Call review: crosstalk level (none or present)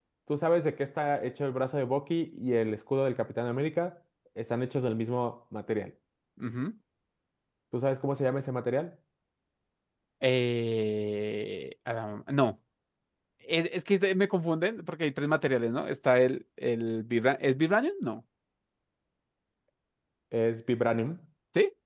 none